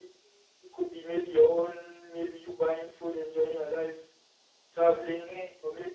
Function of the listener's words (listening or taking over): listening